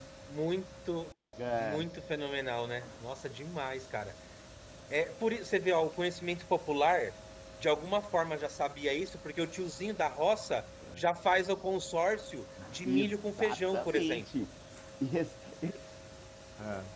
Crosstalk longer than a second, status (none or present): present